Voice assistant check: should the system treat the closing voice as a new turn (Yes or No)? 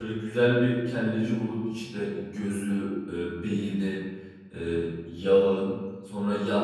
No